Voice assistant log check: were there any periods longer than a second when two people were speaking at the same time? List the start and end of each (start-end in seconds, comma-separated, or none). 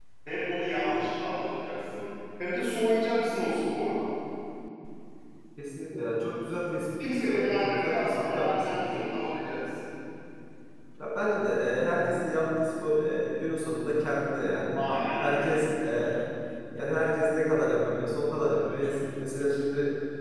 7.2-8.8